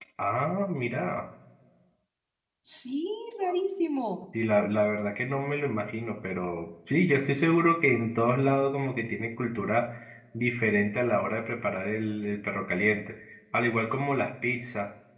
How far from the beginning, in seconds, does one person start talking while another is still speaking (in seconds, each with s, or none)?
none